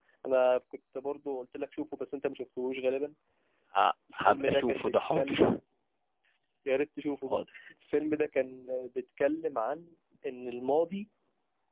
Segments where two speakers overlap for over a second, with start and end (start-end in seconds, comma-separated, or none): 4.2-5.6